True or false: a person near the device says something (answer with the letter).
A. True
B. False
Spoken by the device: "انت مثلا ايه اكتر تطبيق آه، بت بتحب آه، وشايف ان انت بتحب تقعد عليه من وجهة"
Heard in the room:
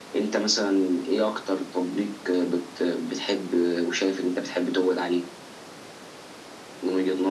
B